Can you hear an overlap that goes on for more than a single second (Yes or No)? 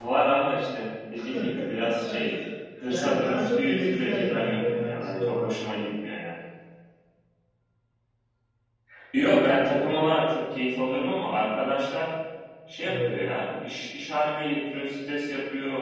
Yes